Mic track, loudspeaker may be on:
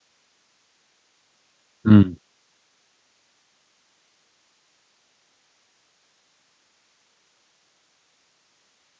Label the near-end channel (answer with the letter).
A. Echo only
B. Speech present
B